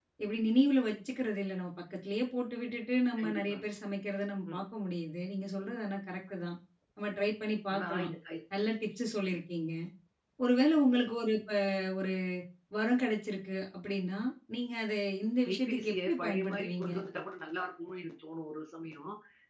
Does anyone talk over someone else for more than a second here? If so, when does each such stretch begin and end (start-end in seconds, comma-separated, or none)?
15.4-16.9